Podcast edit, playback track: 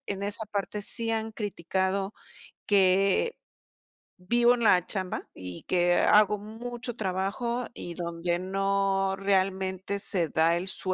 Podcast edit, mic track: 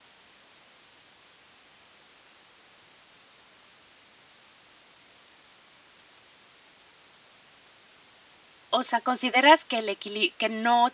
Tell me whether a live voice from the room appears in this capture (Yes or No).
Yes